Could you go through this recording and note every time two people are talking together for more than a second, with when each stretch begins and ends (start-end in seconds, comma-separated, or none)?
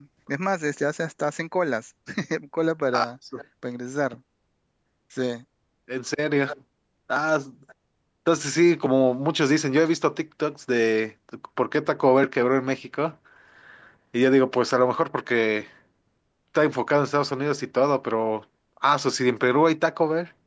none